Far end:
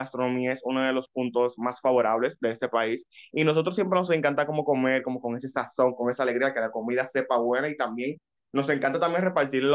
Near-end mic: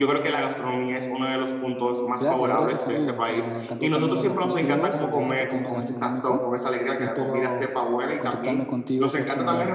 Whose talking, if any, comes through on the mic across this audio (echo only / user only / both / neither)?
both